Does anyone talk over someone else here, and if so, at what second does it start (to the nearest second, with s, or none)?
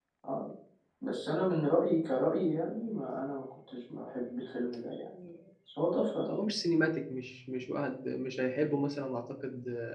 none